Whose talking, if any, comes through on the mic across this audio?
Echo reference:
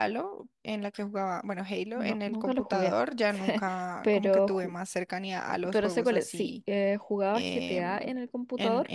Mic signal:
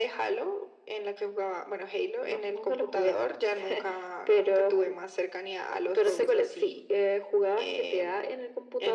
both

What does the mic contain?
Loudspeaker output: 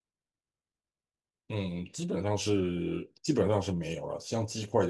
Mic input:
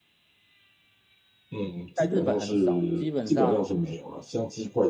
both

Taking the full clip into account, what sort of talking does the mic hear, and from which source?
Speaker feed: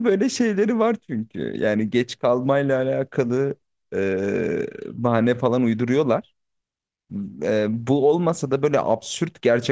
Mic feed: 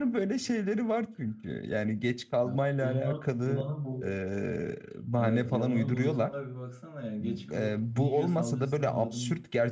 both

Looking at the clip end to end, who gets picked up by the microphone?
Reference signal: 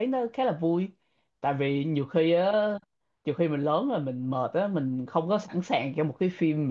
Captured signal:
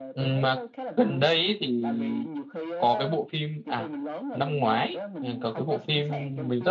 both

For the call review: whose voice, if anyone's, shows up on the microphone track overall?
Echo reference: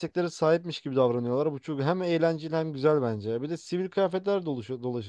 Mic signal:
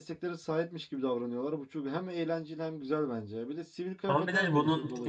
both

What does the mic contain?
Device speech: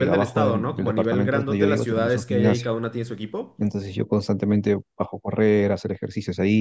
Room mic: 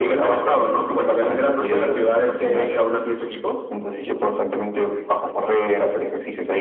echo only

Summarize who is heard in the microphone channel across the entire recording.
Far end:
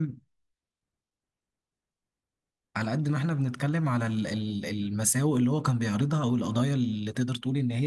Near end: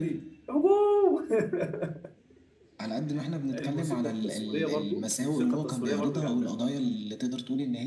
both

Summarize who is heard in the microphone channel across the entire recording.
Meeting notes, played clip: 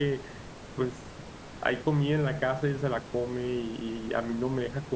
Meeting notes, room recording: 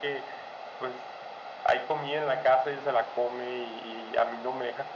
echo only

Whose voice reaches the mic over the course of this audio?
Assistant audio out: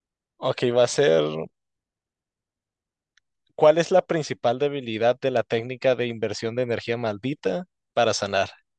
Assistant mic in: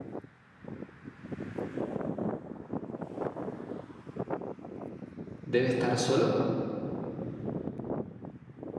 user only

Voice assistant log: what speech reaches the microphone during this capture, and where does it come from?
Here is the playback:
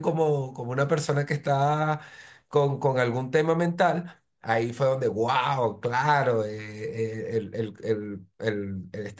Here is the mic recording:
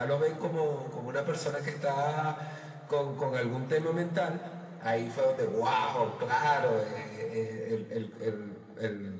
echo only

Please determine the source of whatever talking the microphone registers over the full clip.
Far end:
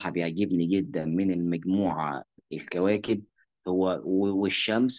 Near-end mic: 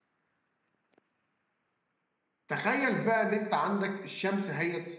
user only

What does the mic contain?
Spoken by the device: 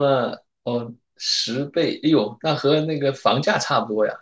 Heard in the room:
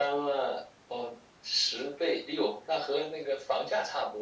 echo only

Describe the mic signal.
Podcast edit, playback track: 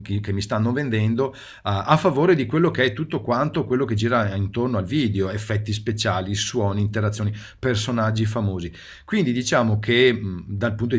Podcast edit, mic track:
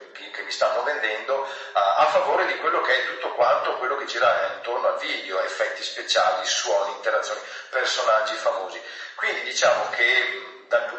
echo only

